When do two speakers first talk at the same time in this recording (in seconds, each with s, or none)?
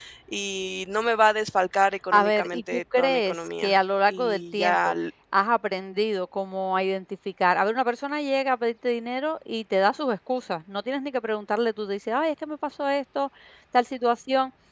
2.1 s